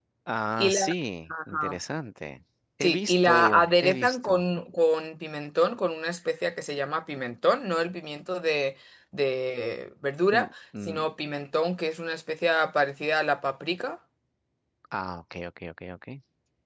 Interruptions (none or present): present